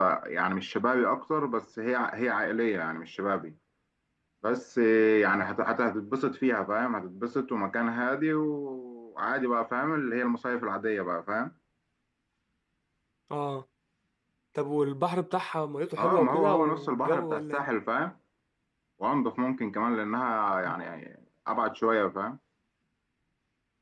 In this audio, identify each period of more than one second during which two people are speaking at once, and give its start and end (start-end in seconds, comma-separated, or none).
16.0-17.7